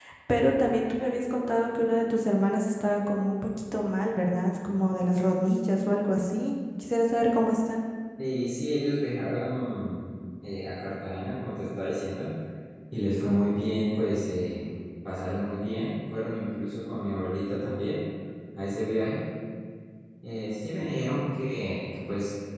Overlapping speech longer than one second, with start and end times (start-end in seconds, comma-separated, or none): none